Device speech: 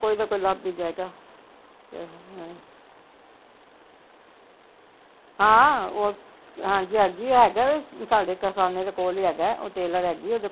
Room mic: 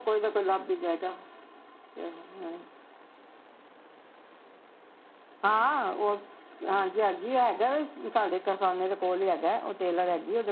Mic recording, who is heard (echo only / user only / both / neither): echo only